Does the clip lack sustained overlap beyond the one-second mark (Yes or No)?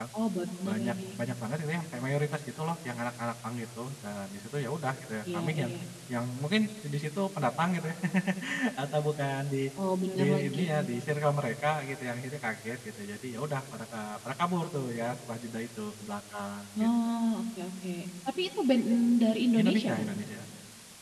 Yes